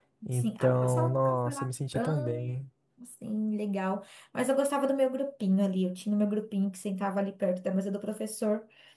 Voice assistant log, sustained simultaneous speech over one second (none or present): present